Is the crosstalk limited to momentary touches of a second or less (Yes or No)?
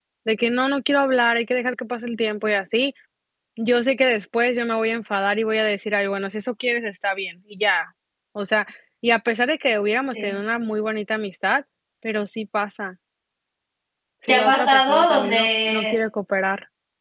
No